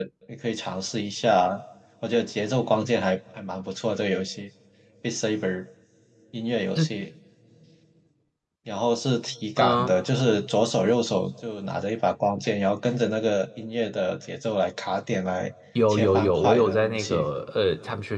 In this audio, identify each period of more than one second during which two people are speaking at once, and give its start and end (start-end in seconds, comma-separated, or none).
15.9-17.3